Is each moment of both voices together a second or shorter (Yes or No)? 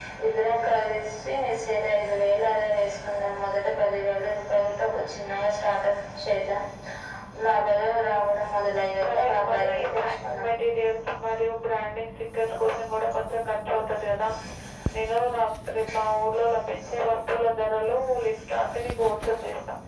No